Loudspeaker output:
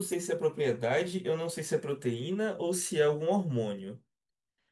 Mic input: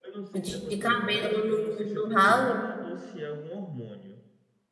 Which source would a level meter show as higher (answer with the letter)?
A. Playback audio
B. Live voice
B